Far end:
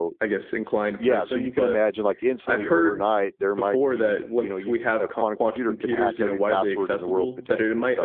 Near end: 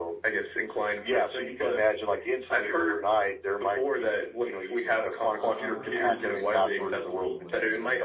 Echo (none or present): present